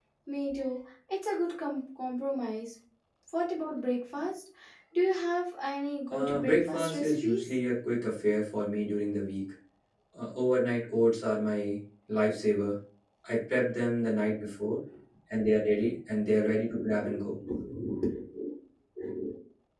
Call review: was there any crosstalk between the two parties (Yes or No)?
Yes